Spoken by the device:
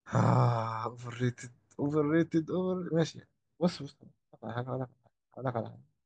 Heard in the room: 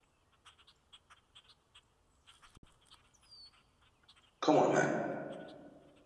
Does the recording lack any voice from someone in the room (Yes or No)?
No